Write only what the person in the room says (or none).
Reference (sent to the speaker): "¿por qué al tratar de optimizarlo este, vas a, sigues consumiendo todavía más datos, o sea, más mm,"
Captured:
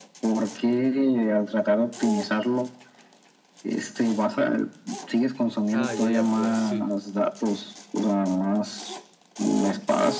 Ah, ya, ya, pues sí.